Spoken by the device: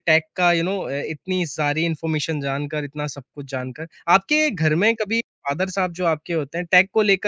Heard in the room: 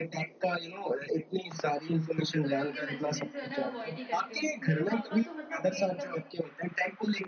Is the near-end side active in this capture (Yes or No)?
Yes